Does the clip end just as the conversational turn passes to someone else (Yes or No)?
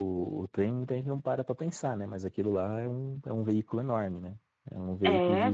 No